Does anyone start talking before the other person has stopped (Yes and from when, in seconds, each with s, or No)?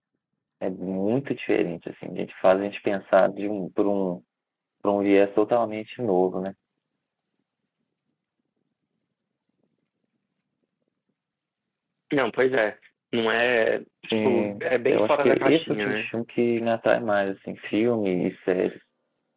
Yes, from 14.0 s